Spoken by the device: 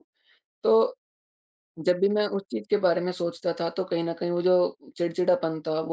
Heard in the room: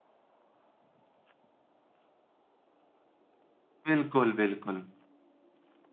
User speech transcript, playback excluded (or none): बिल्कुल, बिल्कुल।